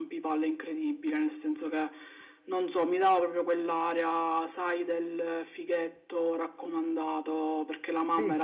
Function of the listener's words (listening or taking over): listening